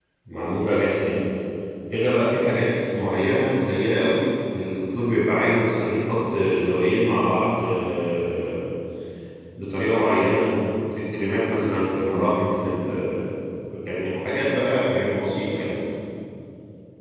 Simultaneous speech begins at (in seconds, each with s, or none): none